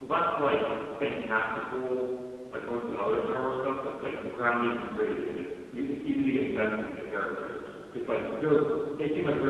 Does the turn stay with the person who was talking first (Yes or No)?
Yes